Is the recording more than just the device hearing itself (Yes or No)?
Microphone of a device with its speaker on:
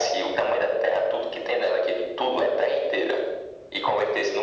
No